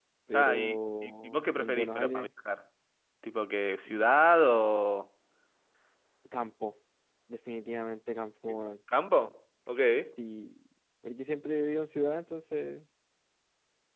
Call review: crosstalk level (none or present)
present